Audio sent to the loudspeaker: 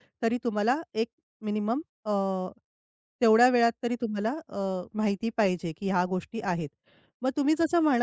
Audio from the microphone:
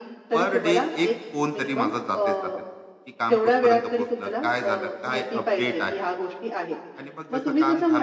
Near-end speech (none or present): present